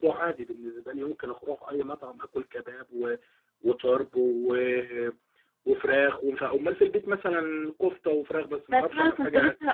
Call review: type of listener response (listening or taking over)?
taking over